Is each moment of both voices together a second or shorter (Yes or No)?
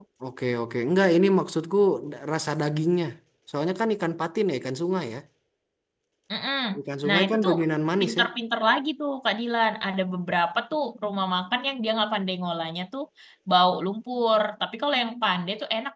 Yes